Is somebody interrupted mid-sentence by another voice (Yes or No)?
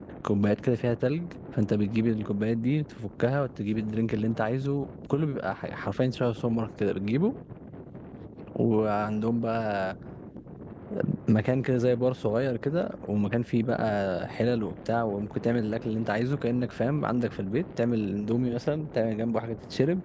No